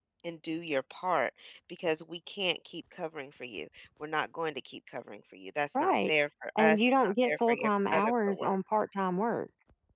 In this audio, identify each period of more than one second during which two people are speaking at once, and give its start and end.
6.6-8.6

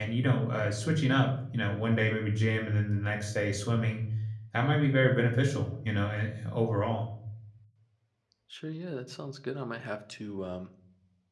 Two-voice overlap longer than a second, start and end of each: none

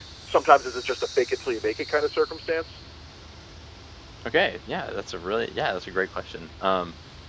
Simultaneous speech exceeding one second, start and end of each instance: none

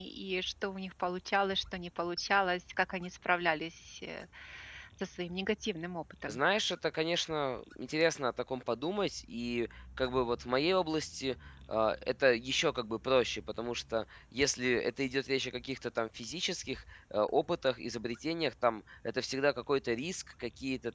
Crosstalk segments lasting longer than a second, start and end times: none

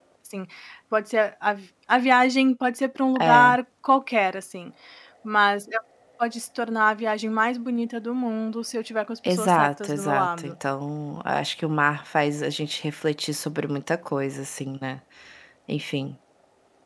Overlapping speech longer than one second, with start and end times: 9.3-10.5

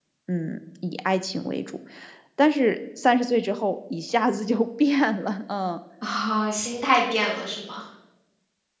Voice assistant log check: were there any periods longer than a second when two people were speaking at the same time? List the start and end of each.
none

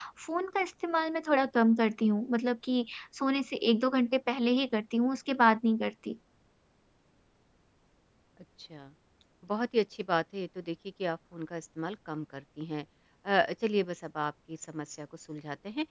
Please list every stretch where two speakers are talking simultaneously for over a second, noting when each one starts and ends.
none

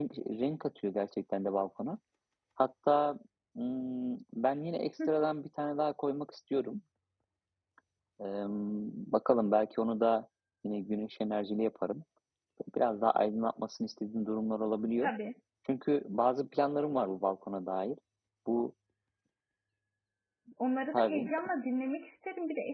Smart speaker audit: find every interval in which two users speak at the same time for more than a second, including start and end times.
none

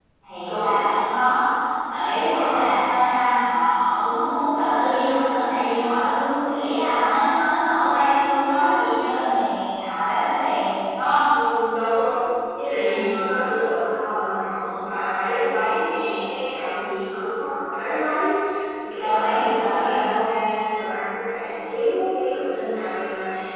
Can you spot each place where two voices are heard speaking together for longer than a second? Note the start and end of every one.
19.0-20.3

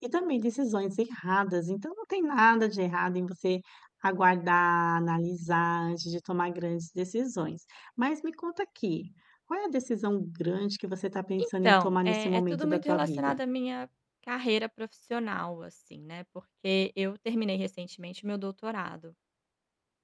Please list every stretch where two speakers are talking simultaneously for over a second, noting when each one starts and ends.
11.4-13.3

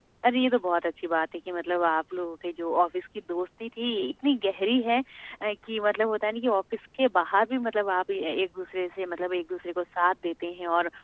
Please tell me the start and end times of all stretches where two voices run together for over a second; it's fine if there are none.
none

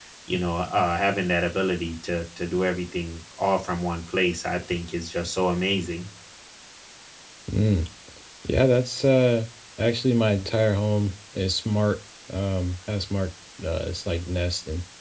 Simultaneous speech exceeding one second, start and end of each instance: none

